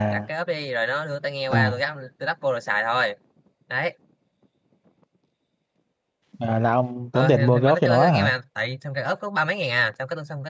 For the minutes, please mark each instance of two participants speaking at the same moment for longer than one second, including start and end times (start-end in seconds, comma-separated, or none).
7.1-8.3